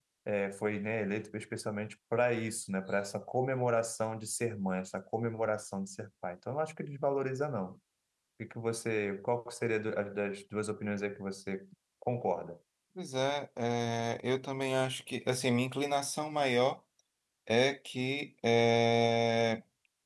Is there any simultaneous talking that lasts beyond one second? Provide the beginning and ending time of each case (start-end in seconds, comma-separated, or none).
none